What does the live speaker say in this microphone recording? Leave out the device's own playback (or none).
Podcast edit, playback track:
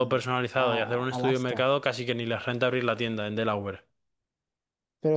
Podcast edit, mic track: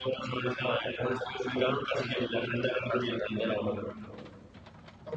none